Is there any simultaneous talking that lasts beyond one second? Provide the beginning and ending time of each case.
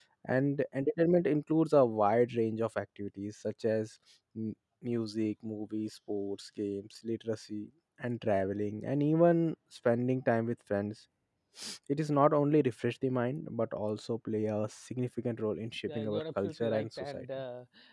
15.9-17.2

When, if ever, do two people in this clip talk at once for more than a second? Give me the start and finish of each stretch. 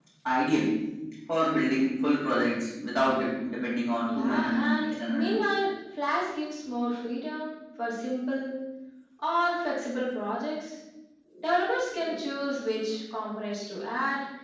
4.1-5.4

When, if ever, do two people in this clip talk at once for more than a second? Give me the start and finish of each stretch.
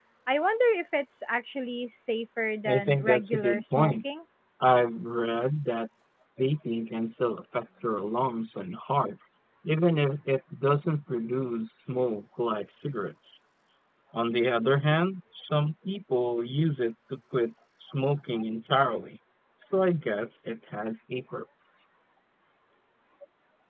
2.6-4.0

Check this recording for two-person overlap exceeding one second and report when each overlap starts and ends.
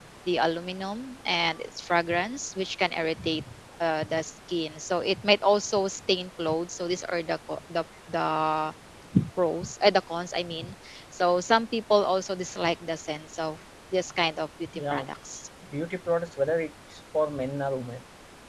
none

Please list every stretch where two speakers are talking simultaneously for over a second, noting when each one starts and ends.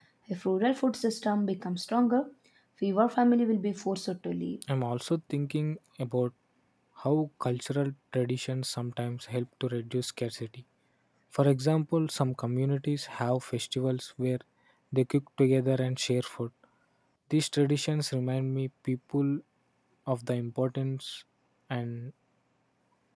none

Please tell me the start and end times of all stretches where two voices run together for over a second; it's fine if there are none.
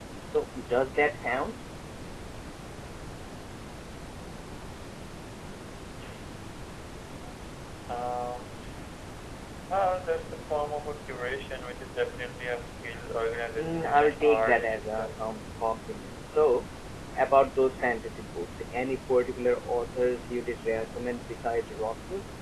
13.6-15.1

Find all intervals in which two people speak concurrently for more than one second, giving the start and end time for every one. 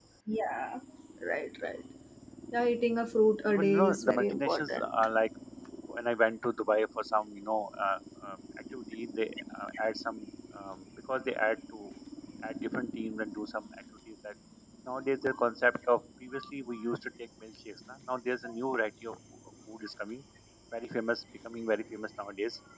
3.5-4.9

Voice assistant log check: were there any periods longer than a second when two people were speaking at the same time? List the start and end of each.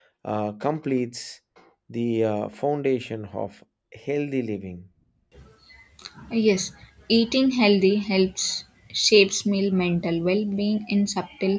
none

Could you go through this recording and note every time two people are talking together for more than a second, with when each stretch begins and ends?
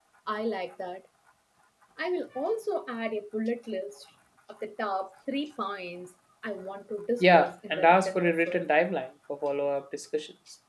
7.2-8.7

